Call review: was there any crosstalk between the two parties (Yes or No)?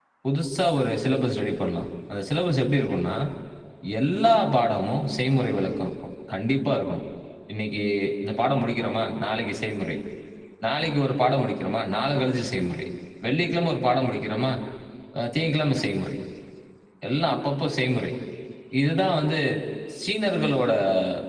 No